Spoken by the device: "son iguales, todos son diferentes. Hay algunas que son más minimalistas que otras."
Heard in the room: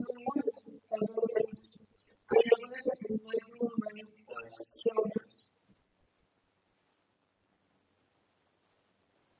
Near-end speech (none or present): none